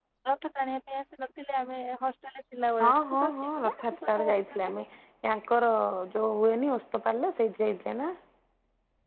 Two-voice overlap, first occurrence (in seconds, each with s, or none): 2.8 s